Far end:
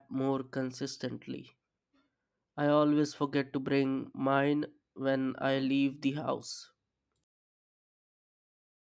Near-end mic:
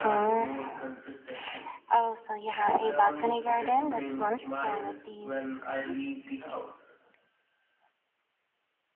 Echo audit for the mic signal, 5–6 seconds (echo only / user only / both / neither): both